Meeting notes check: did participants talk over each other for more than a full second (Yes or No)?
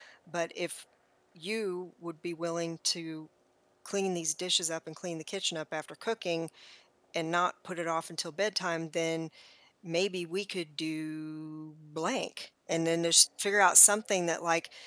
No